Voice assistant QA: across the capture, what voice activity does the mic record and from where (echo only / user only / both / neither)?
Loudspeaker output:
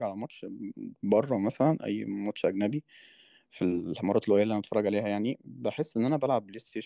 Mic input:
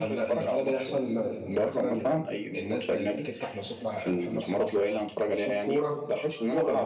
both